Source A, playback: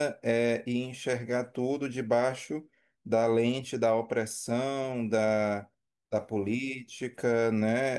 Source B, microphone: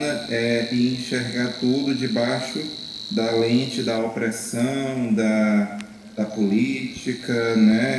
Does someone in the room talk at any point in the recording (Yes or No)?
No